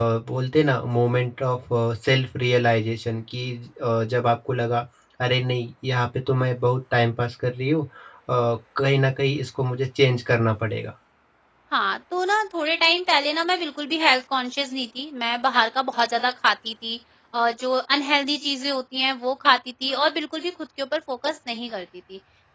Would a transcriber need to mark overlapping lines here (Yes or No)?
No